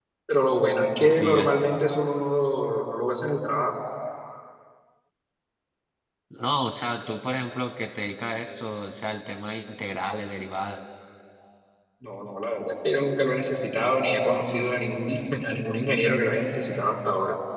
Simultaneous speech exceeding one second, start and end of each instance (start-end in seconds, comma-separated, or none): none